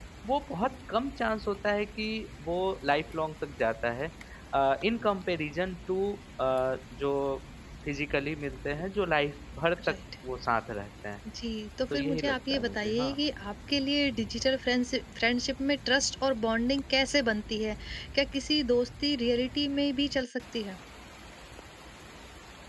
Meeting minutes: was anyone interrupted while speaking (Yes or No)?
Yes